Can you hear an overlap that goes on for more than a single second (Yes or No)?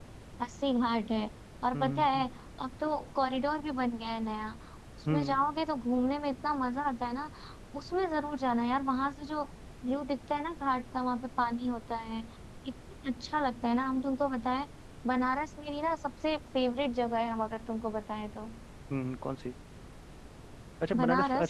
No